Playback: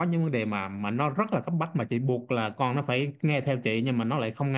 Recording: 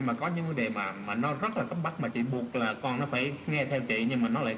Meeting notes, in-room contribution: none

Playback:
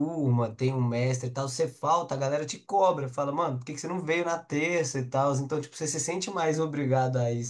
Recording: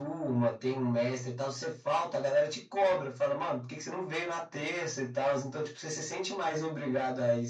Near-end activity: none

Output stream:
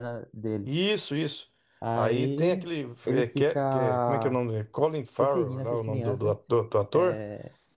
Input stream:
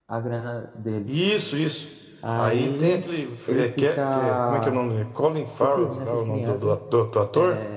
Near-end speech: none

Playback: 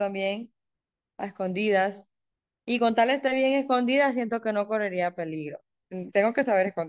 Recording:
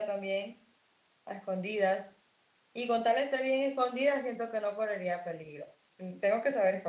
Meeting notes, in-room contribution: none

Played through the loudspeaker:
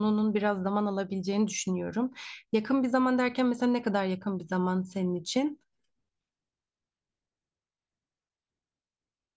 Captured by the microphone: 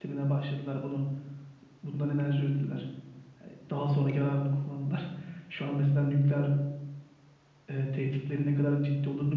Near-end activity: present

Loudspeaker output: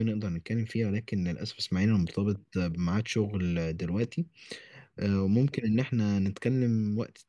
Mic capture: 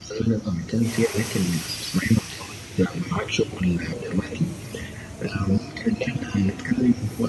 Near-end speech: none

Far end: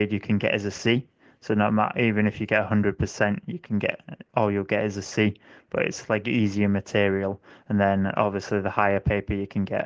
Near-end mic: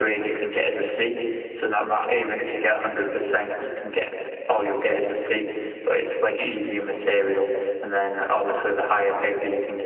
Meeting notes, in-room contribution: none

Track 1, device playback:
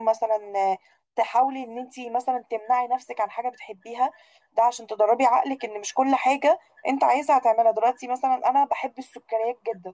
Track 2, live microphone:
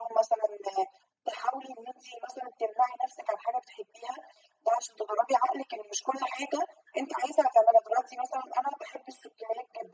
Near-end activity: none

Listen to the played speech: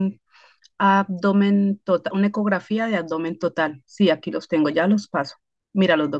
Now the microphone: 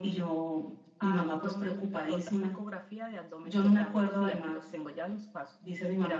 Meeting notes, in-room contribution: present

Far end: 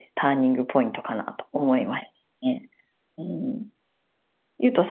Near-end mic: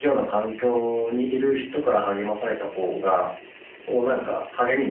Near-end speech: present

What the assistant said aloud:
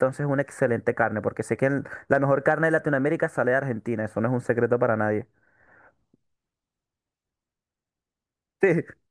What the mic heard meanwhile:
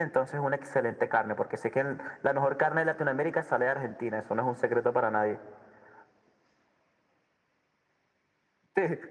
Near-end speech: none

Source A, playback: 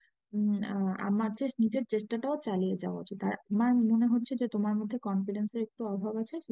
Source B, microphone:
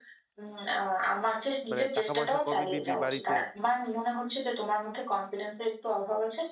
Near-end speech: present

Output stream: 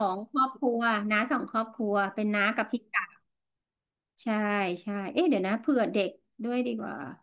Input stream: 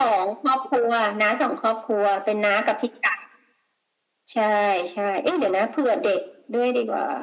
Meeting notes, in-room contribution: none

